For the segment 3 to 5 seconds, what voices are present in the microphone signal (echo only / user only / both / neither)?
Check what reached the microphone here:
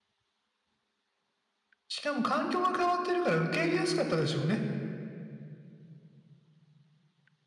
user only